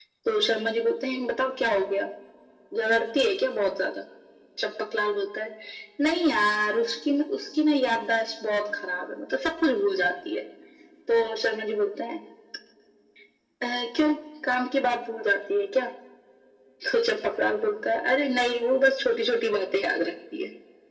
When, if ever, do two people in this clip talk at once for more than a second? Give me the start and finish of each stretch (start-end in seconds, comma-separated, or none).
none